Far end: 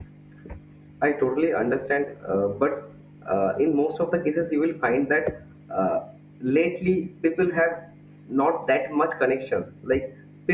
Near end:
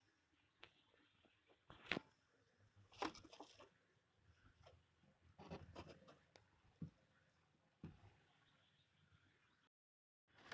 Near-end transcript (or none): none